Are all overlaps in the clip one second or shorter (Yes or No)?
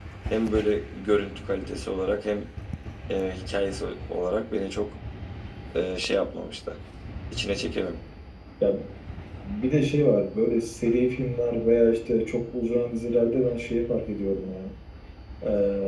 Yes